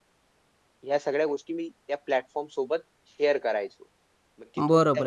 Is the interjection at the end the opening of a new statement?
Yes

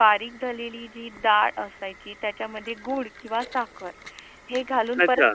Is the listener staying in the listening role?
Yes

